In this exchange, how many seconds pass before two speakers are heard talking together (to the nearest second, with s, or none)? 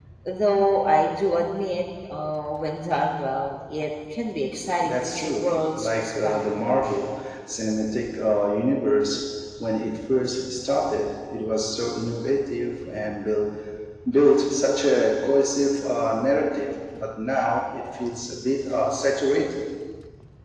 5 s